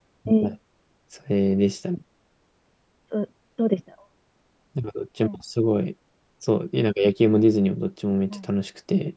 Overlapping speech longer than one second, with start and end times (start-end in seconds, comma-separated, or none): none